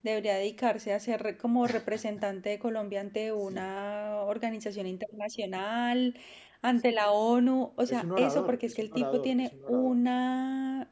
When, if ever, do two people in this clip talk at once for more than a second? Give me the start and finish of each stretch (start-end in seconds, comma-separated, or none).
7.9-10.0